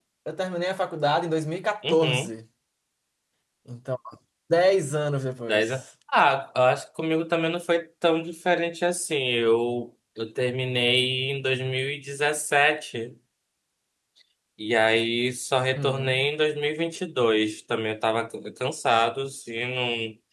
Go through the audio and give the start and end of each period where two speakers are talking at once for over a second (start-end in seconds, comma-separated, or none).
none